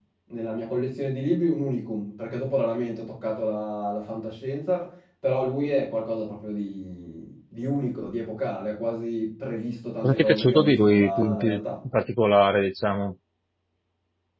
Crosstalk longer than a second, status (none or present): present